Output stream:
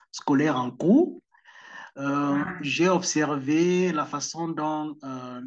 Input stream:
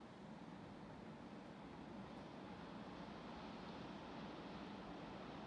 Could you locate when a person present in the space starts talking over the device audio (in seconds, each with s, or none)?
none